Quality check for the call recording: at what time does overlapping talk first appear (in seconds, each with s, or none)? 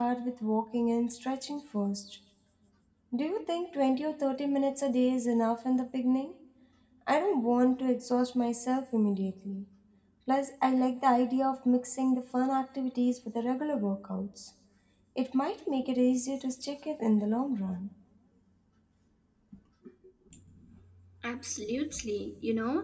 none